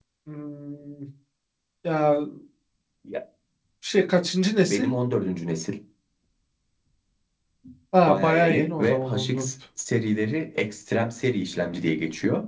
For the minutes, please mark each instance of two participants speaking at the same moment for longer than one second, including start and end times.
8.0-9.4

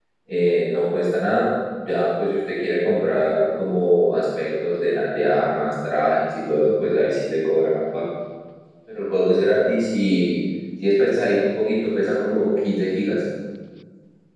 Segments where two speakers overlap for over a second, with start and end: none

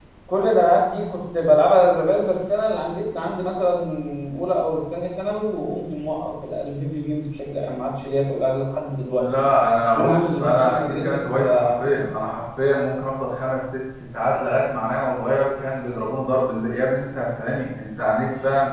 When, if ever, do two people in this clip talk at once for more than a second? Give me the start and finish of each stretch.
9.9-11.9

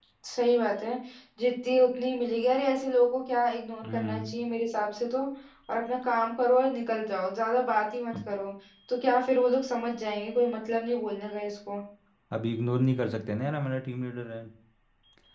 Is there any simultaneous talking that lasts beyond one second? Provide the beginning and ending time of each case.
none

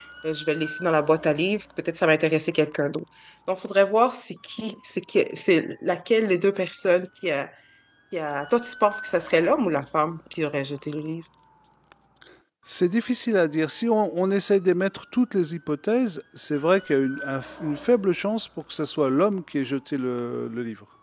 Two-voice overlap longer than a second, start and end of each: none

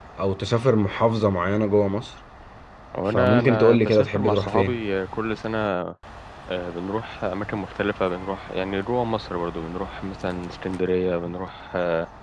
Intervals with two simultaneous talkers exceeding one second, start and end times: 3.0-4.8

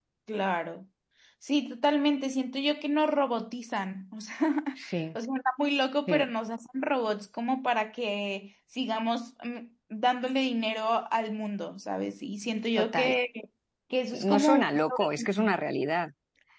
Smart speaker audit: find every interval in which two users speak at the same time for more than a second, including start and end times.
14.1-15.5

